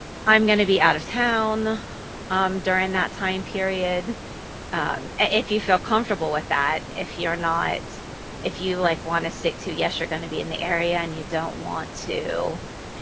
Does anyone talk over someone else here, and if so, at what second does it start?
none

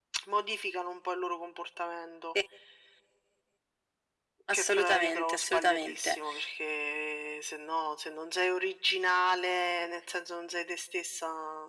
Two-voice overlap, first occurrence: 4.5 s

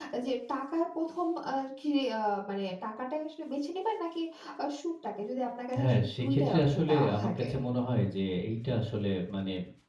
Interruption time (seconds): 5.7 s

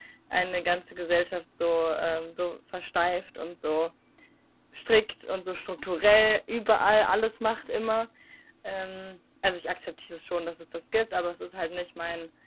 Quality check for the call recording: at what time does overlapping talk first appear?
none

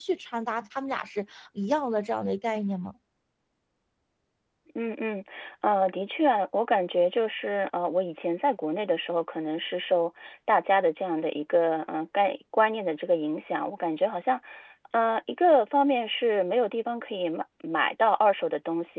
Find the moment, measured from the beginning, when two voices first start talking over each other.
none

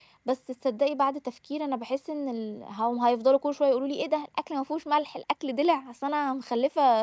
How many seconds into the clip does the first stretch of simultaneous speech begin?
none

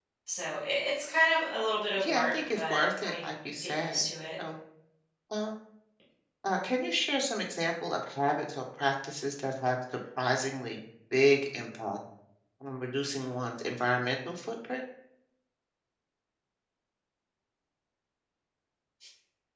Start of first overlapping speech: 2.0 s

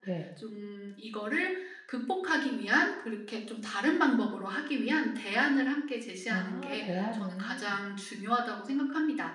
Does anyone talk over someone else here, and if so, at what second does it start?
6.3 s

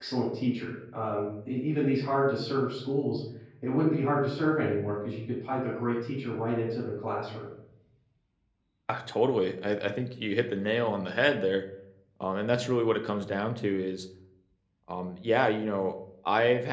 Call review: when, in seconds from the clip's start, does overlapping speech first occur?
none

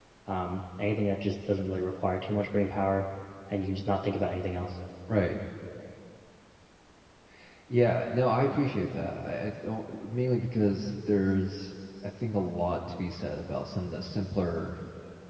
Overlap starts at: none

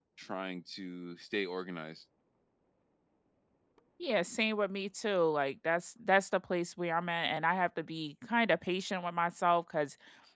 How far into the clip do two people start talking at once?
none

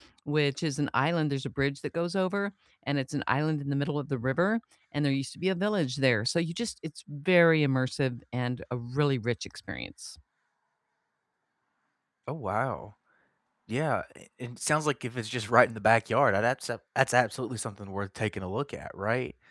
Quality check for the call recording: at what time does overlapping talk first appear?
none

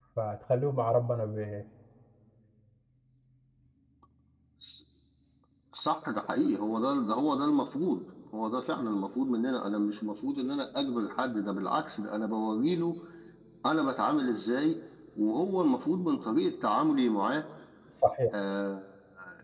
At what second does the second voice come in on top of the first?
none

